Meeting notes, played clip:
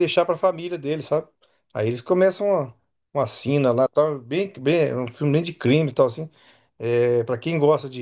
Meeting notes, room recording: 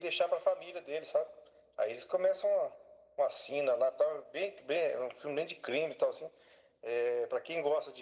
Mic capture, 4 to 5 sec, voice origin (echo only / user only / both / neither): echo only